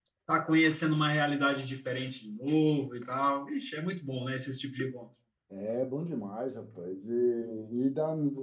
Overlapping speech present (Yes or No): No